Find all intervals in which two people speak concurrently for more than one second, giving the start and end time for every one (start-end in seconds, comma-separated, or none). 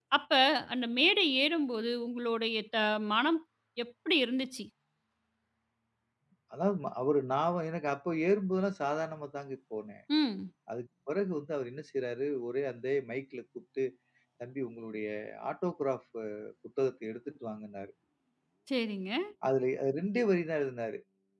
none